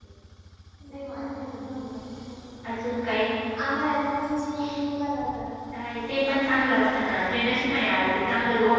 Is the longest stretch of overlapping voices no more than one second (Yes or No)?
Yes